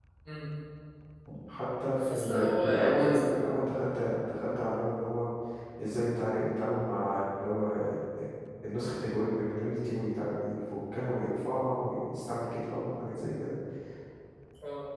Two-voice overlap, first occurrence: 2 s

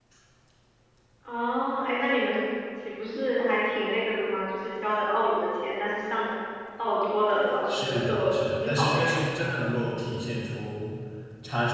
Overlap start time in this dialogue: 8 s

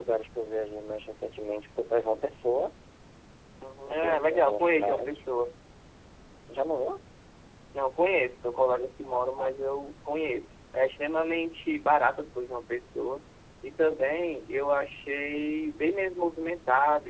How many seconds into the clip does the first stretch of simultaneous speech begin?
4 s

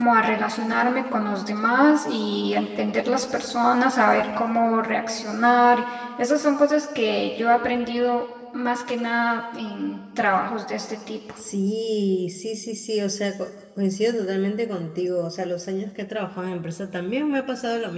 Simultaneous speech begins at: none

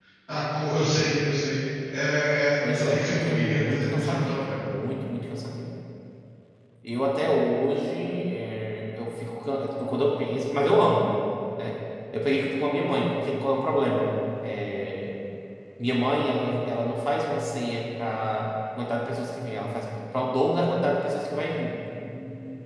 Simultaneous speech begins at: 3 s

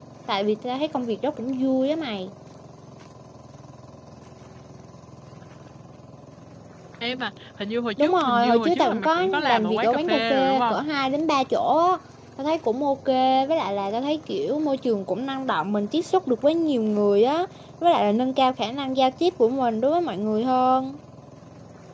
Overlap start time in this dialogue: 8 s

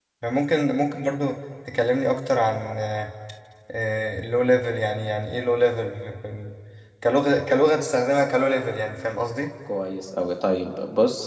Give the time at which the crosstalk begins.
none

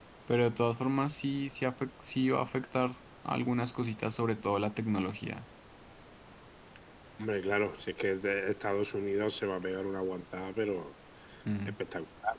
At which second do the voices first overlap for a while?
none

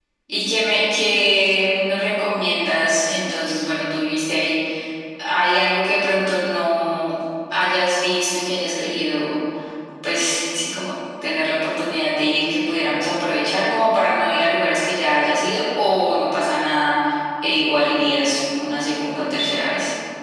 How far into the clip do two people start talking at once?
none

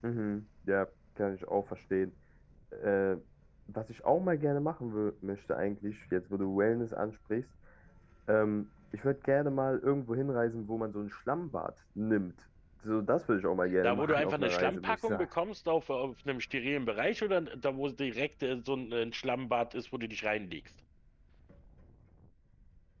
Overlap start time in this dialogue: 14 s

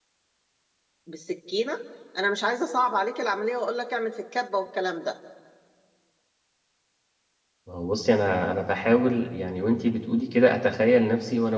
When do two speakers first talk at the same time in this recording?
none

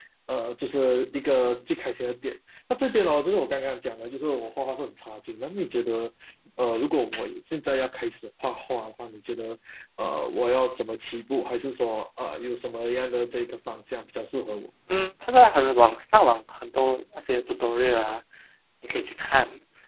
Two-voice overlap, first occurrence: none

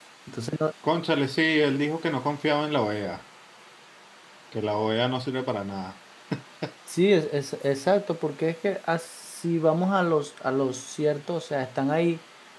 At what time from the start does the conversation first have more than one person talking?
none

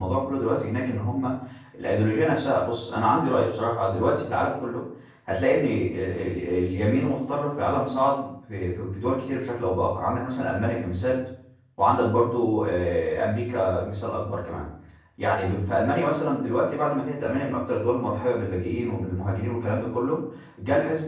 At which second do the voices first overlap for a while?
none

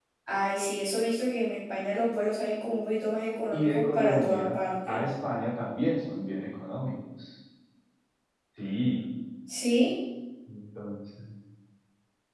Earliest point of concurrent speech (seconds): 4 s

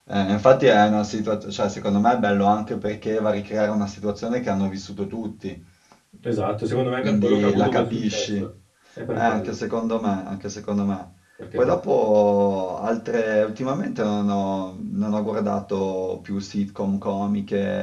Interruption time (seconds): 7 s

